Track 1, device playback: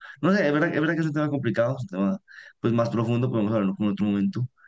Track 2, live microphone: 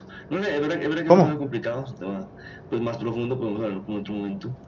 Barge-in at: 1.0 s

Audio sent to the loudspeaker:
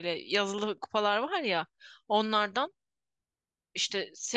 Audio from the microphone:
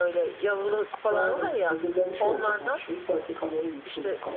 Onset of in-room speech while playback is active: 1.1 s

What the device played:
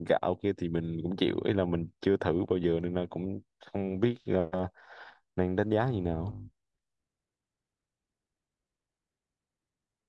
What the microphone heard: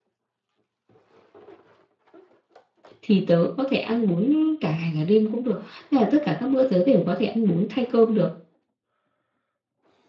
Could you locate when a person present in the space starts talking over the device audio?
3.0 s

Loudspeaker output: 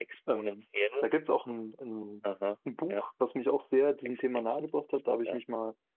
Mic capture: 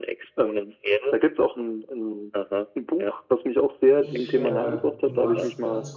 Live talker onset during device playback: 4.0 s

